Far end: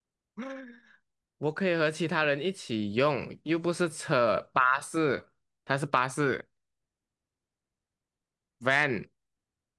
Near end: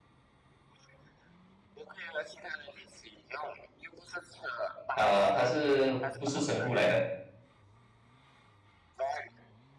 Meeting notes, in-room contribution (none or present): present